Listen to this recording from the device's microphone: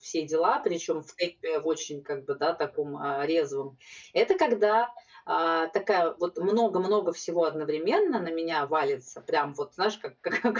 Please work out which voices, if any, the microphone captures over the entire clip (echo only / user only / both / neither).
echo only